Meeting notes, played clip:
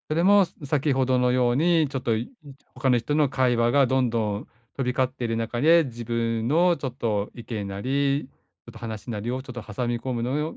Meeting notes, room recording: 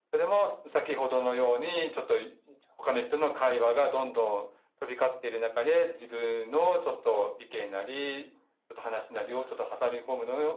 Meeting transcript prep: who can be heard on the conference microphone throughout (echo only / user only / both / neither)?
echo only